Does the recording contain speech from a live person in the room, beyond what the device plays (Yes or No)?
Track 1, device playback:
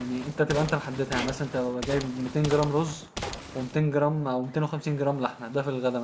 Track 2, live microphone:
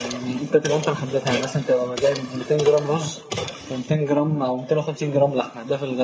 No